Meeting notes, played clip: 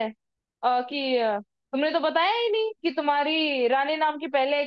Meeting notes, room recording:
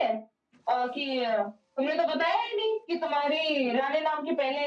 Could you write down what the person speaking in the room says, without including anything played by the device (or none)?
none